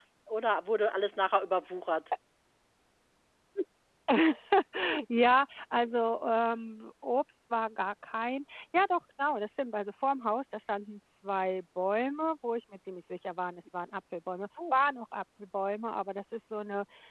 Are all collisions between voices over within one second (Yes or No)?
Yes